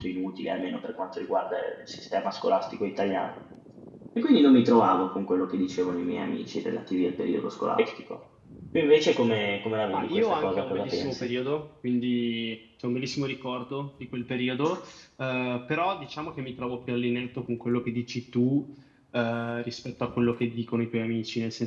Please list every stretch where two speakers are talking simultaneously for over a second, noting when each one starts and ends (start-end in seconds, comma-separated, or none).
9.9-11.3